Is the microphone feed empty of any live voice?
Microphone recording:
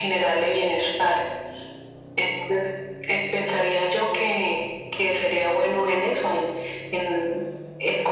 Yes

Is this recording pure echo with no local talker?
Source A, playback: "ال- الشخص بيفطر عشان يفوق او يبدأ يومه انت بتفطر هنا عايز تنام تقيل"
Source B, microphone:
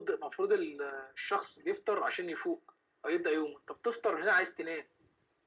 Yes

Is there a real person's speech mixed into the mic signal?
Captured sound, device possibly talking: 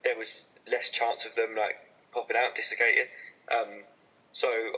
No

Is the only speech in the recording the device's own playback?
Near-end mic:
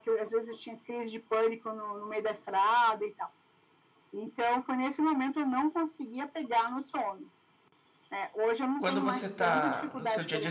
No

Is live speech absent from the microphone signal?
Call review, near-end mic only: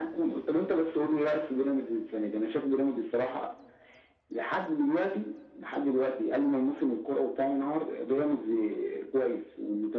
Yes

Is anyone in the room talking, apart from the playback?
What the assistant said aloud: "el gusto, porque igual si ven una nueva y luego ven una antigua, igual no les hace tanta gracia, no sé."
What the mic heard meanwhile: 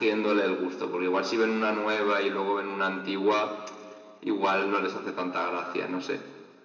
No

